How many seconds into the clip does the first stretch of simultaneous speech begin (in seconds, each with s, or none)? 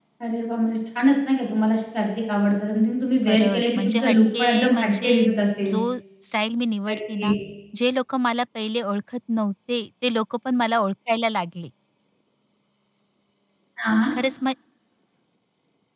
3.3 s